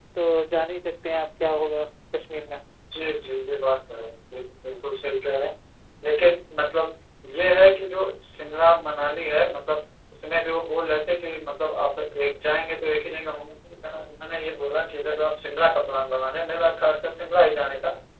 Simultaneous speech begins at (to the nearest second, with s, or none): none